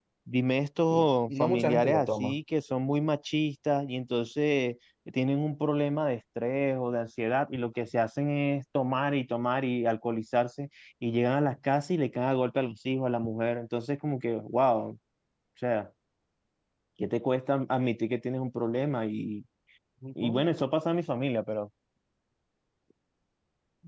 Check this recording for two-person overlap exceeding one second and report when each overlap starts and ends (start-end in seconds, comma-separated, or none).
0.9-2.4